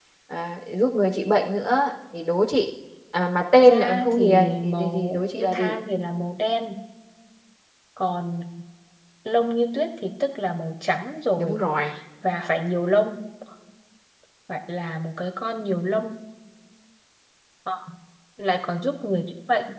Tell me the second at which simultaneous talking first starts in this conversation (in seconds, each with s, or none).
3.6 s